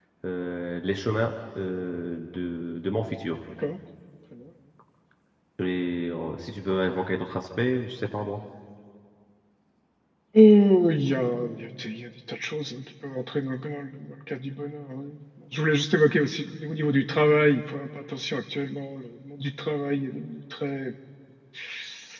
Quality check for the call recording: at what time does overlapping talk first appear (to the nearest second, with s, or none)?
none